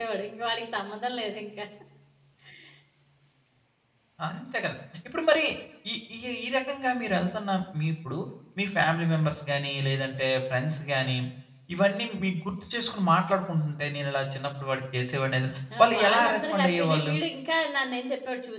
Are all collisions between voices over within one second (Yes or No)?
No